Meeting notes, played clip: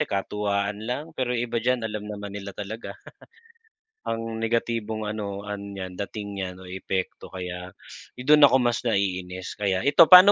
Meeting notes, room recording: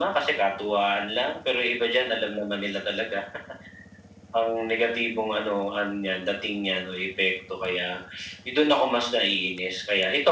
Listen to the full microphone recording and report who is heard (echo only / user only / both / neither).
echo only